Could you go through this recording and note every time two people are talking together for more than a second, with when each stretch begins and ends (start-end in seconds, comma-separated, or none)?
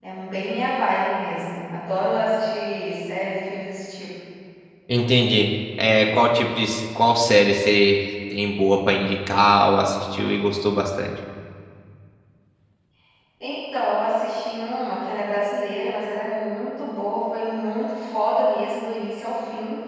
none